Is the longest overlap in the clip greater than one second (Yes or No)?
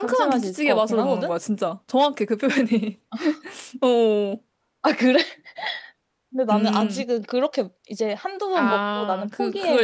Yes